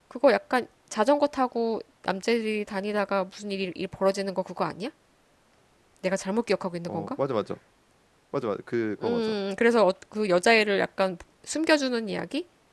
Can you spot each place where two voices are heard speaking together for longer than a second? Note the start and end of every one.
none

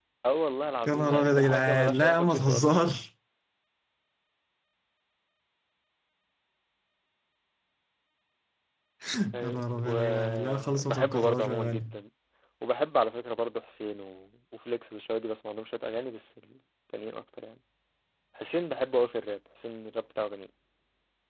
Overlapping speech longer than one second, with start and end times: 0.9-2.9, 9.4-11.9

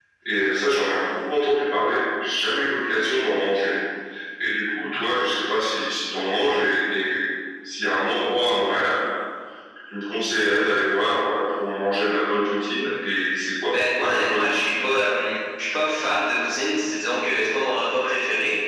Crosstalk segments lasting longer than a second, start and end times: 13.7-15.1

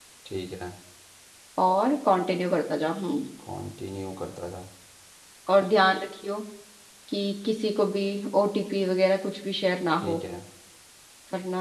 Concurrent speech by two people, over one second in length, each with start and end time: none

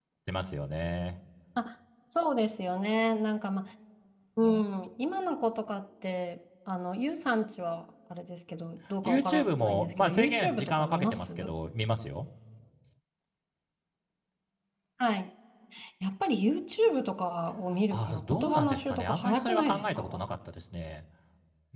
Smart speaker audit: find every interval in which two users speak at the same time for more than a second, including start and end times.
9.0-11.3, 17.9-20.2

